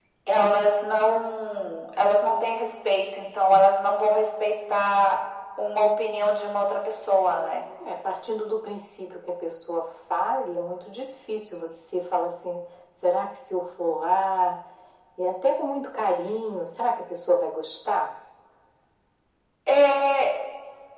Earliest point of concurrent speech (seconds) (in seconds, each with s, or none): none